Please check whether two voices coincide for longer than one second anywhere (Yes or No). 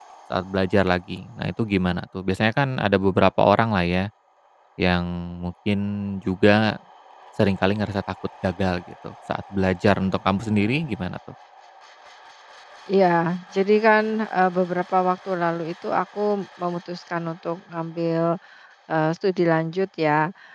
No